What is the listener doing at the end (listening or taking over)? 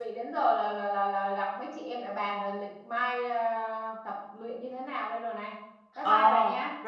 taking over